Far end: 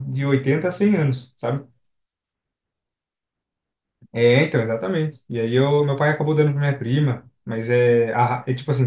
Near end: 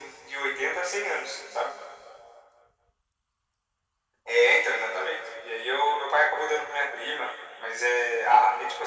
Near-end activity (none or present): none